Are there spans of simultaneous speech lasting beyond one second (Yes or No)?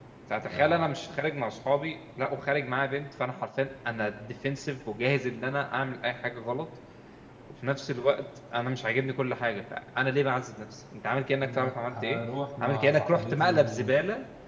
Yes